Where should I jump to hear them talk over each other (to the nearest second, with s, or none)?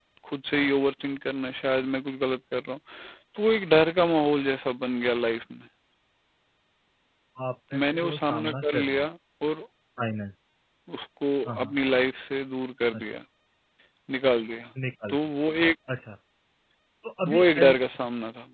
8 s